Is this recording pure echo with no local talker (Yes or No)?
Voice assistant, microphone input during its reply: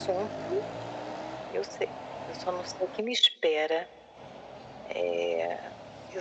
Yes